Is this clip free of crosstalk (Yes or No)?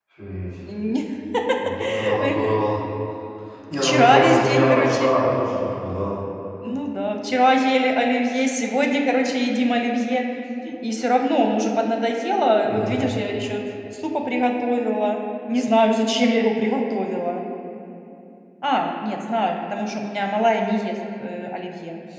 No